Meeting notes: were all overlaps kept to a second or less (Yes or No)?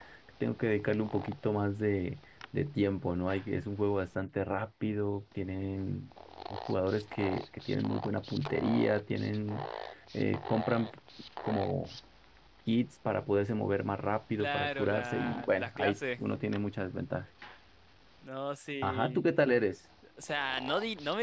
No